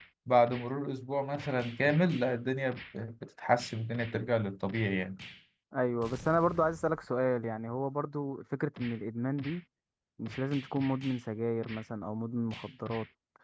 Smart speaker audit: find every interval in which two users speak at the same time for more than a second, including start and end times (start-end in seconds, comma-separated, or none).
none